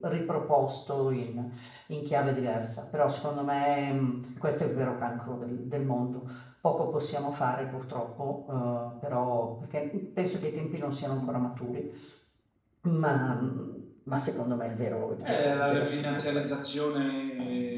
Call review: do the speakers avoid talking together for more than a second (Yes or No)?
No